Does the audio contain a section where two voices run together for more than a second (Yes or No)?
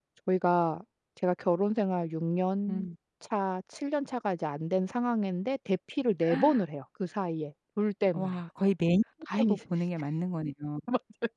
No